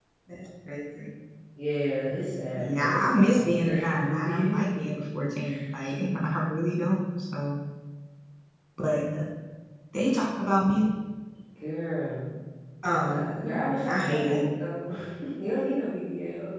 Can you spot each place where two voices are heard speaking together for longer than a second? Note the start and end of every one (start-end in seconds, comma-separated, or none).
2.6-4.6, 13.1-14.4